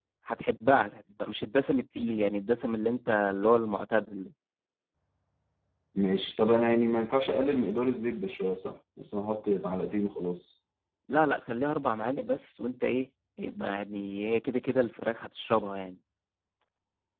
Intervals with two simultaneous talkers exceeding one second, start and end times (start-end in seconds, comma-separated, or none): none